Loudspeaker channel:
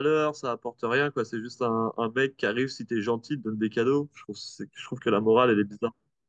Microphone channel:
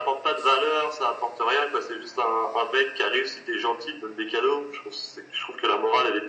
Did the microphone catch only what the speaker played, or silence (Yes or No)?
Yes